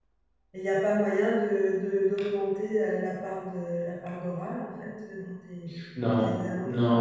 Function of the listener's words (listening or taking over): taking over